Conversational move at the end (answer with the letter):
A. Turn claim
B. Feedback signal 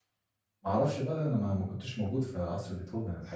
A